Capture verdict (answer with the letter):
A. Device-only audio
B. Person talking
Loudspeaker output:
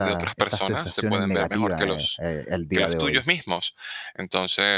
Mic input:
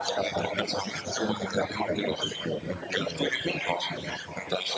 A